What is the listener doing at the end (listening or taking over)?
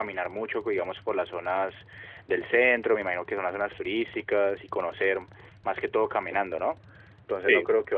listening